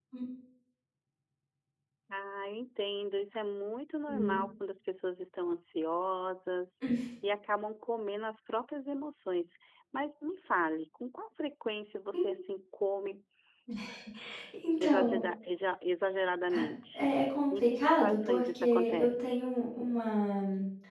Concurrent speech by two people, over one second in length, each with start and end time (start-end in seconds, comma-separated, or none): 17.5-19.4